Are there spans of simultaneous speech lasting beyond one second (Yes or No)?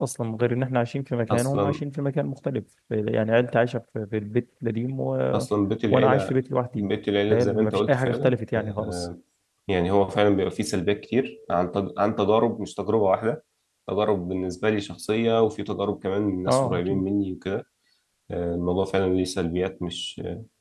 Yes